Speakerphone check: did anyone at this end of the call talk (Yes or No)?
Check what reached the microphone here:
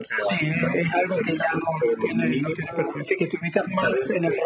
No